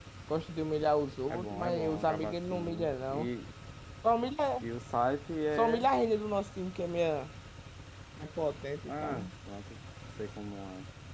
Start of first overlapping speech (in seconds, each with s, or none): 1.3 s